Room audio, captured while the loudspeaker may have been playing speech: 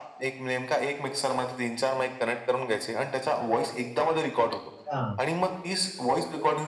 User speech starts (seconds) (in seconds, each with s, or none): 4.5 s